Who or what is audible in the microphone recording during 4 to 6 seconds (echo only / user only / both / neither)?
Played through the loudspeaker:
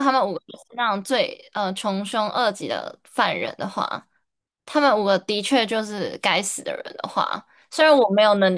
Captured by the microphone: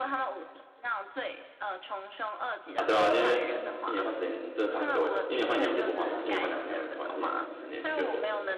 both